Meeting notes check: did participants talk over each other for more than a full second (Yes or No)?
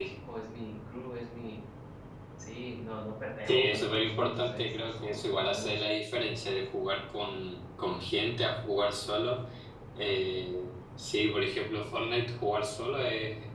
Yes